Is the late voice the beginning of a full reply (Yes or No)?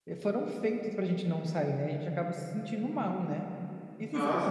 No